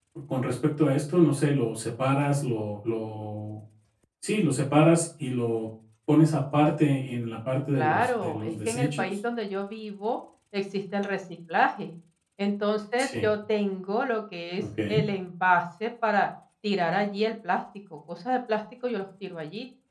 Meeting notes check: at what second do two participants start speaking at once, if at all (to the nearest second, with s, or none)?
8 s